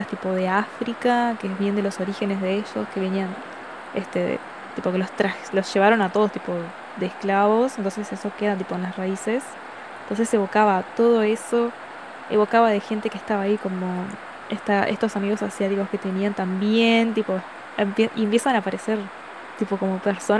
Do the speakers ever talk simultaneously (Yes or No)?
No